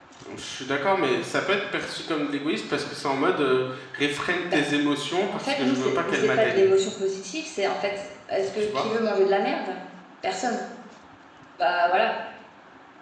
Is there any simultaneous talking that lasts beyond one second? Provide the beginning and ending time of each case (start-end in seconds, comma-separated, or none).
5.3-6.7